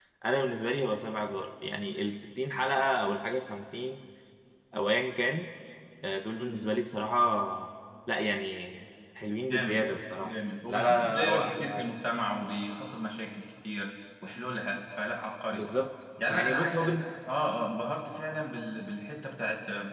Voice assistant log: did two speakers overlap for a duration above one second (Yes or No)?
Yes